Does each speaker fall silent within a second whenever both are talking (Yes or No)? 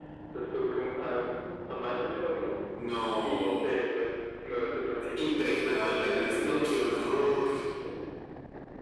No